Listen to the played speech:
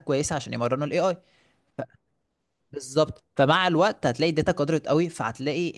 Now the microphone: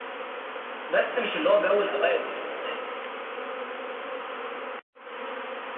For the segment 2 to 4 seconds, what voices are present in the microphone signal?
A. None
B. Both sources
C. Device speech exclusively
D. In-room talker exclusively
D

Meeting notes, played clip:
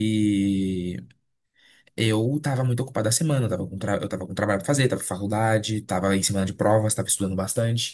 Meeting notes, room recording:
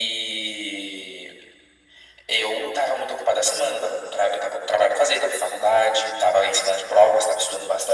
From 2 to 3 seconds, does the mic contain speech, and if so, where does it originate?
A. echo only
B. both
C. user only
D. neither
A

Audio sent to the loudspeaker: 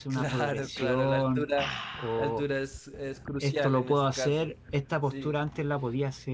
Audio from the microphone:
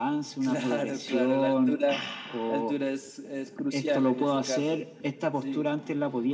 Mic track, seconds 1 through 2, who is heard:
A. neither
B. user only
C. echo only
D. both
C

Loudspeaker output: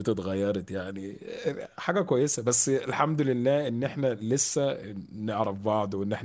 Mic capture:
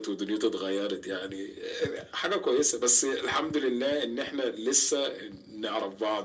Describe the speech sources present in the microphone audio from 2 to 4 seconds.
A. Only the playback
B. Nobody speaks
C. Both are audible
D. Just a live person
A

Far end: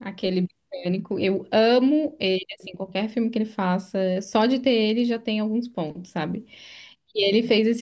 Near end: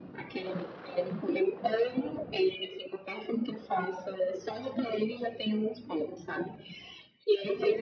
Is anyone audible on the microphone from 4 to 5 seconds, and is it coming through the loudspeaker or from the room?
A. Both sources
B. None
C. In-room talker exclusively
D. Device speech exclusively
D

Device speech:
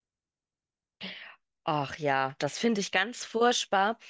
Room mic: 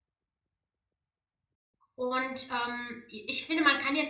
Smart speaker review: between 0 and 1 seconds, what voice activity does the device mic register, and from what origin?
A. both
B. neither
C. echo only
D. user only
B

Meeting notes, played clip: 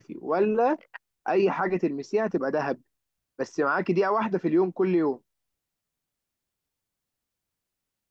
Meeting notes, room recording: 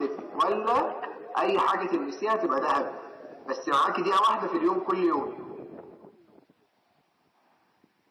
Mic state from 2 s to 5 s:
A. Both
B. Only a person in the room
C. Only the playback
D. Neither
C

